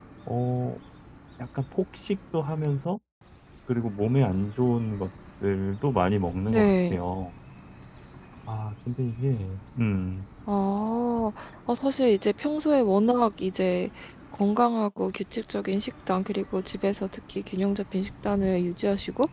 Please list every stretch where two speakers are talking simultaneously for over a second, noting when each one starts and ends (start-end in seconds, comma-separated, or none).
none